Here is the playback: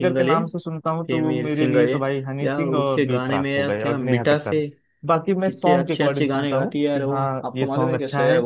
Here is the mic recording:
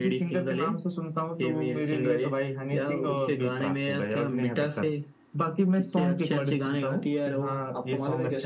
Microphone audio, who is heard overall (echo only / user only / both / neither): echo only